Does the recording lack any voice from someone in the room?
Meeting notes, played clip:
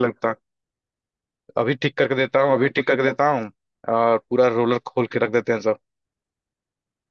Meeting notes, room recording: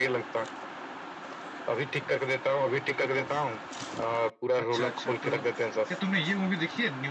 No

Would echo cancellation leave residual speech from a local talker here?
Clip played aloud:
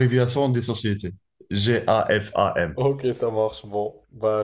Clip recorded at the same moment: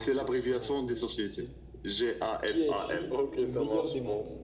Yes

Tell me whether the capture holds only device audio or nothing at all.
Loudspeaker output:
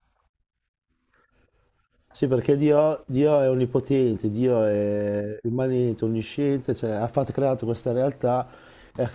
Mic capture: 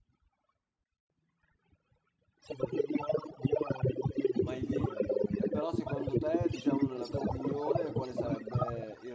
No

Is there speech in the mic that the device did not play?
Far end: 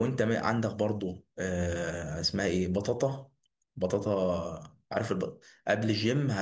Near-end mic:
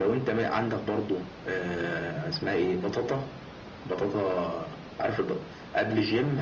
No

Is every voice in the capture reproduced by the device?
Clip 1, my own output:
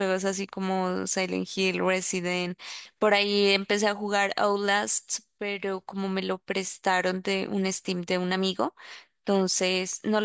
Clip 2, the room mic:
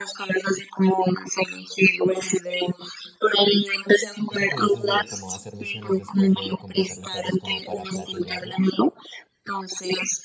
No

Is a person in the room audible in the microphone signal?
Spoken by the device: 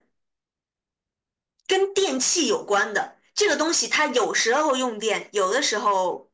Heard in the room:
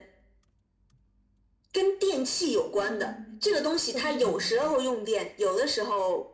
Yes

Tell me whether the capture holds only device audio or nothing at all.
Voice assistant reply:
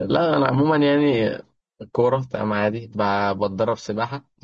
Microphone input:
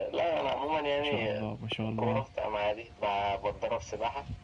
No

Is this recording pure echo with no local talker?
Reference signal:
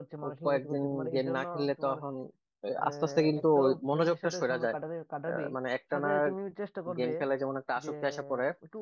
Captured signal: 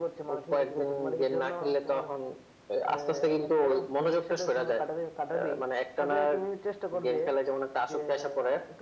Yes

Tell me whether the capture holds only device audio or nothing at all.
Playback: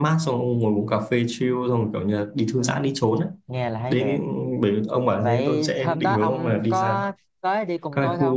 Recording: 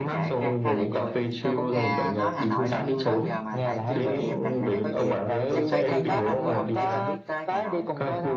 No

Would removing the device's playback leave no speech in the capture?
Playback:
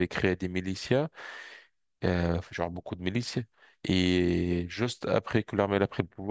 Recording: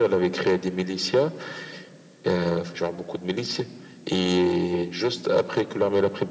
Yes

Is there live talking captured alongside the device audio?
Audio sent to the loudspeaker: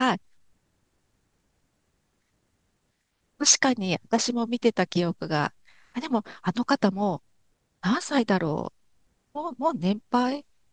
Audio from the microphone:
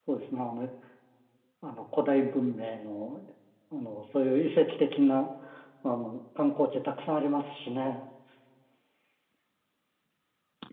Yes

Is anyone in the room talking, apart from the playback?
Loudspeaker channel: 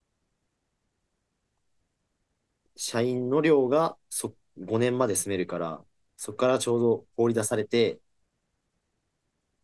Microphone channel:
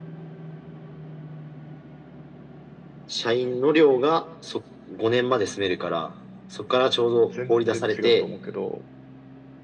Yes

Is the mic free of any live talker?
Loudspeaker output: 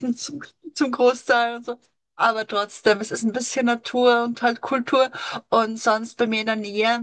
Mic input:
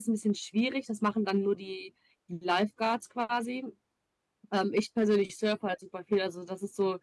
No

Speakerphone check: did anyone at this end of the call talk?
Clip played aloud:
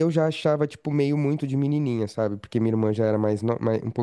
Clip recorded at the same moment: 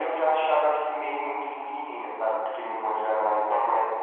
No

